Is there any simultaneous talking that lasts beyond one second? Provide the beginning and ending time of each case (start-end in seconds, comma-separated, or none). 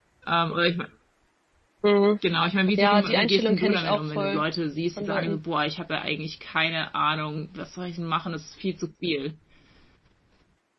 2.8-4.4